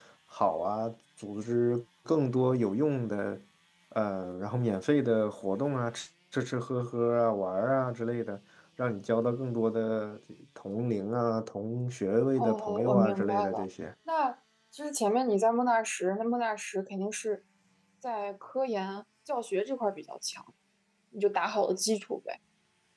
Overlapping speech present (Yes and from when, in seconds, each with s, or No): Yes, from 12.4 s